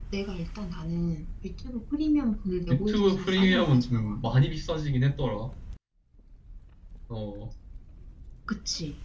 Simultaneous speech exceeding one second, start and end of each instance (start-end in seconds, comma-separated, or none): 2.7-4.2